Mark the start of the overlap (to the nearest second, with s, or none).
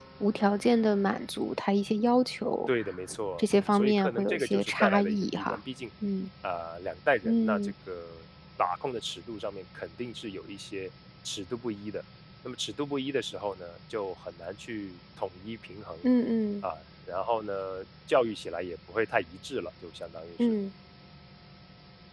3 s